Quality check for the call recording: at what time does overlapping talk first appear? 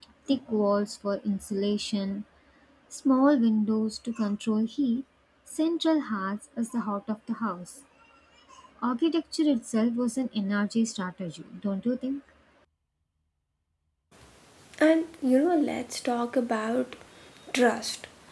none

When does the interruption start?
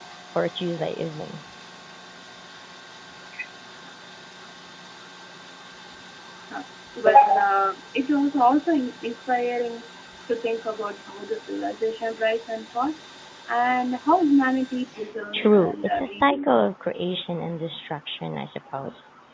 15.3 s

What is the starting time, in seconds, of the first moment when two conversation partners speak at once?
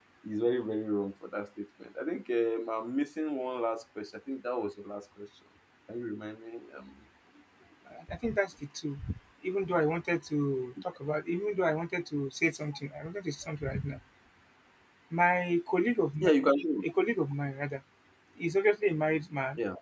none

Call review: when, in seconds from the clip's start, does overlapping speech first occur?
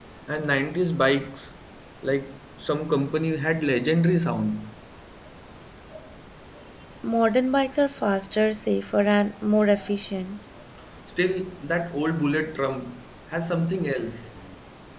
none

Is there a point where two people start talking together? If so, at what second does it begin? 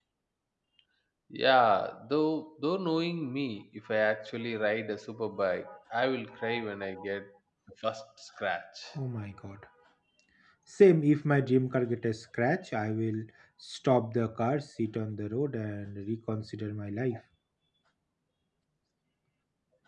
none

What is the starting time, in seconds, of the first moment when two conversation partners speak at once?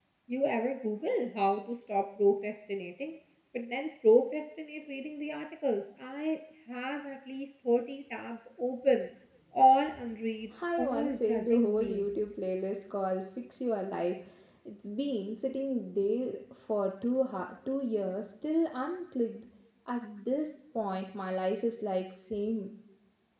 10.5 s

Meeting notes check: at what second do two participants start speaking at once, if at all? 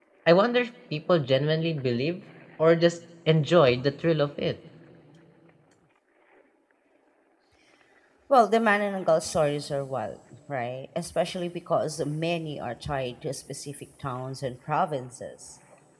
none

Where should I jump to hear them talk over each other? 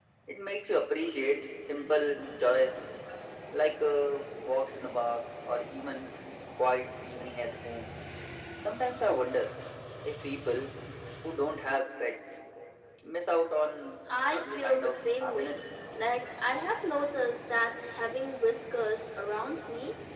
14.3 s

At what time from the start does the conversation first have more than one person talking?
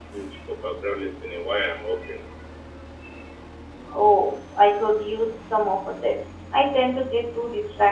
none

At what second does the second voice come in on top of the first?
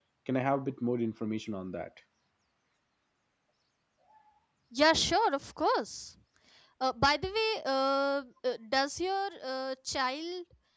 none

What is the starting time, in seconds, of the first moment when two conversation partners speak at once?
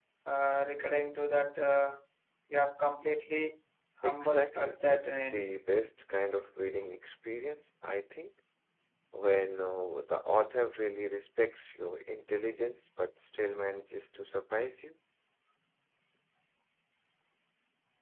4.0 s

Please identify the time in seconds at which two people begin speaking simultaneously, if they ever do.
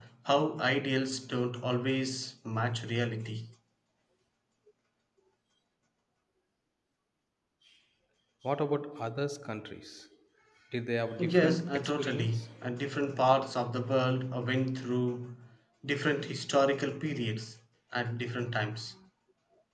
11.2 s

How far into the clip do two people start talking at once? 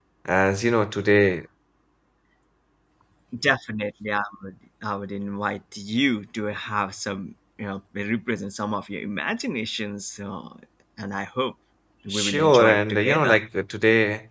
12.1 s

